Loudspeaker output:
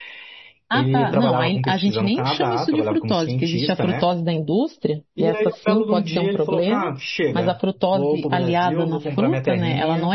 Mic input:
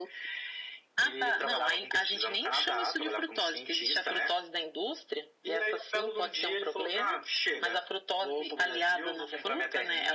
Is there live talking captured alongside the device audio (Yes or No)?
No